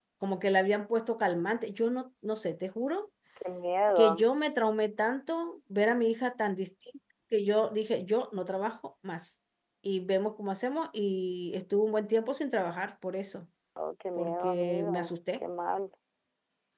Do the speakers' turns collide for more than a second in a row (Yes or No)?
Yes